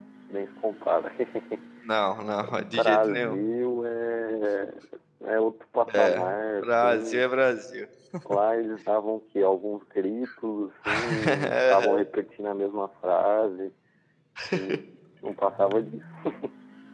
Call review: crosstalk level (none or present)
present